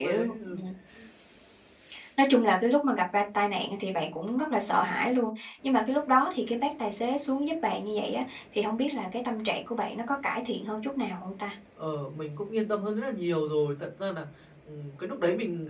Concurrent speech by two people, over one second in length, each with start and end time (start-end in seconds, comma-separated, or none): none